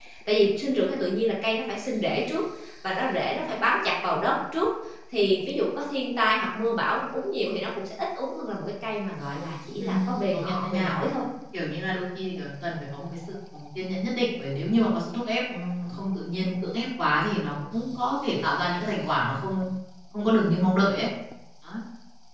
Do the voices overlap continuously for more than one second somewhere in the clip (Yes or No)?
Yes